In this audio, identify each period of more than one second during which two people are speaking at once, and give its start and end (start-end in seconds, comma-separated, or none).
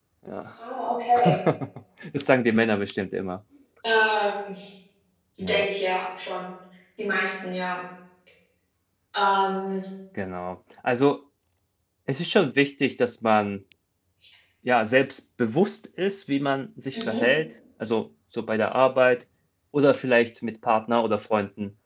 none